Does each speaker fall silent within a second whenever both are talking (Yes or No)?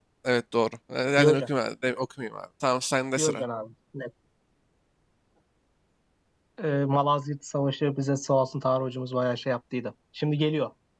Yes